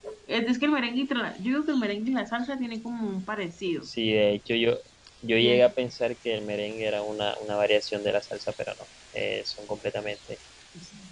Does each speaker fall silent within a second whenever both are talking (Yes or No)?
Yes